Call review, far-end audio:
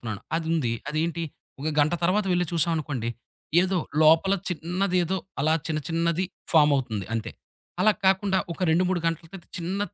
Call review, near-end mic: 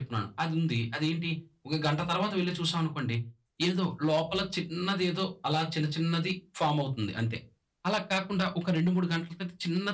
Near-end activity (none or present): none